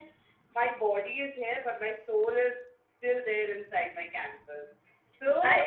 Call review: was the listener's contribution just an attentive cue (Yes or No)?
Yes